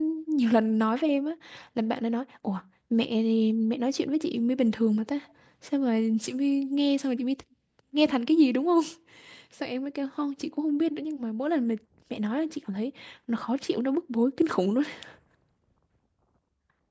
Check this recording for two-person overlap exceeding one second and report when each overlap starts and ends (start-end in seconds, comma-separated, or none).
none